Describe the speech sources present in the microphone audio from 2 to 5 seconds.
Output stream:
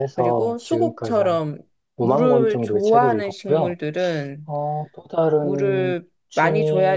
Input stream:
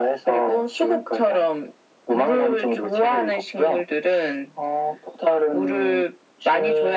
echo only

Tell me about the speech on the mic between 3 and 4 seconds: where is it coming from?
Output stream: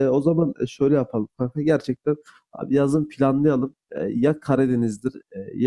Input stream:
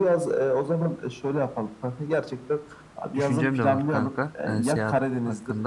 both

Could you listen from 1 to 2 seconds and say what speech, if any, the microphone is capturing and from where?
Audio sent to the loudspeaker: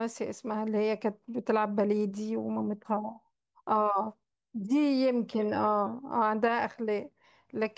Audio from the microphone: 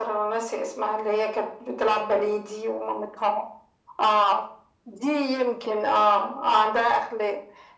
echo only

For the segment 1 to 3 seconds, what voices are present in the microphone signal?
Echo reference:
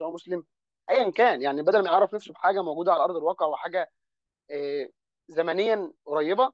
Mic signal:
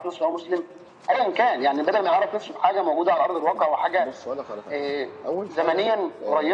echo only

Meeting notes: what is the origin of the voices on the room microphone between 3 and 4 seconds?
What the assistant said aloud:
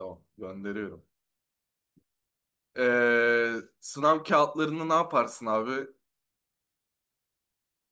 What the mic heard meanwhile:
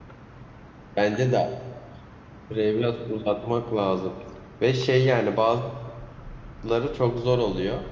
user only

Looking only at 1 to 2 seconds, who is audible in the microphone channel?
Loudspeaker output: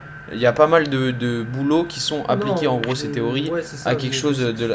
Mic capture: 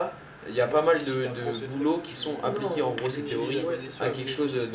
both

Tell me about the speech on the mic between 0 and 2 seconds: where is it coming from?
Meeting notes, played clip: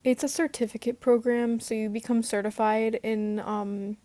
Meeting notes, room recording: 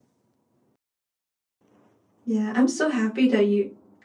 neither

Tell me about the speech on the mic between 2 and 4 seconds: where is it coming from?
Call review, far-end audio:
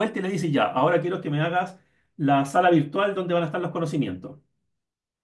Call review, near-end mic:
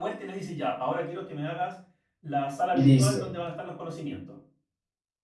both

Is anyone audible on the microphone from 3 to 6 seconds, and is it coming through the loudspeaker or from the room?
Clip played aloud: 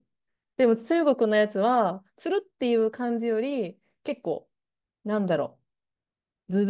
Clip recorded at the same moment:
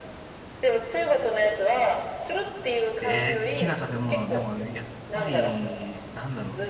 both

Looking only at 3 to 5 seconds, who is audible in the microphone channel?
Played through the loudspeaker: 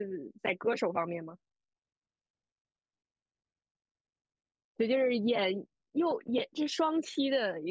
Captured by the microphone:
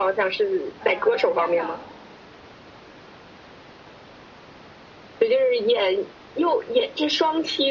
neither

